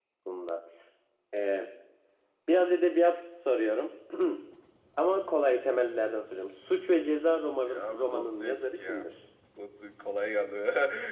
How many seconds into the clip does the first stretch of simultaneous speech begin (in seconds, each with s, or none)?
7.7 s